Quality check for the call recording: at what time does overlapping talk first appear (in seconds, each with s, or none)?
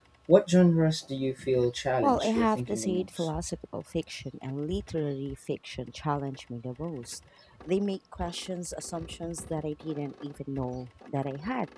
2.0 s